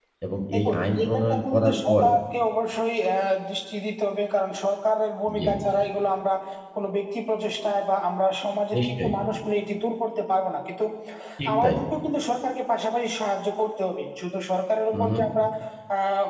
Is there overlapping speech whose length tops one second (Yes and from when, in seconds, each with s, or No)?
Yes, from 0.5 s